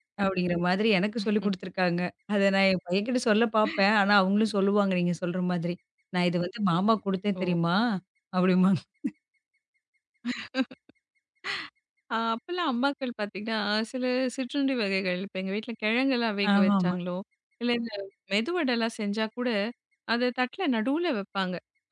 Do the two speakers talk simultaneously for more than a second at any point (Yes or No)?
No